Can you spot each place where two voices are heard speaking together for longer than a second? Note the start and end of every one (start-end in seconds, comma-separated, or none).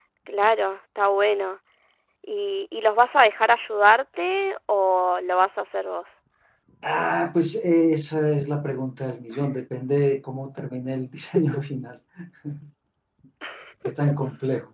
none